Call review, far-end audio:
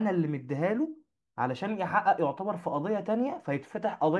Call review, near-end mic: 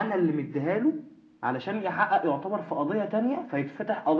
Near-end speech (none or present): none